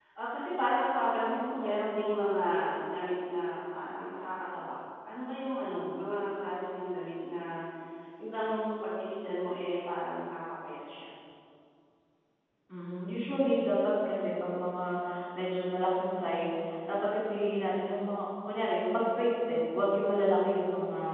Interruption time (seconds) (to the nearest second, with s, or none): none